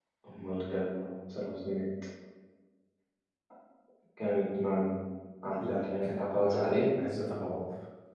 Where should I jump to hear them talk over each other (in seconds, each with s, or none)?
5.5 s